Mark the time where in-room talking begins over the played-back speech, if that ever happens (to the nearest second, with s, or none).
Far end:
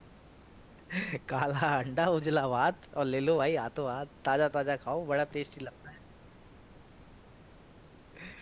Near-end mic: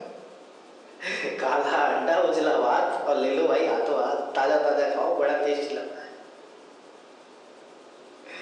none